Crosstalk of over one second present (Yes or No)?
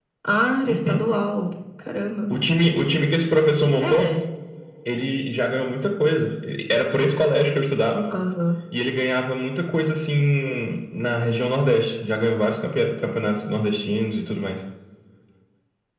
No